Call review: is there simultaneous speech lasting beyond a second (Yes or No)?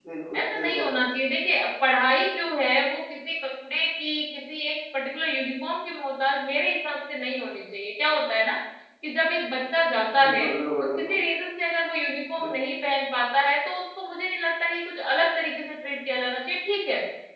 No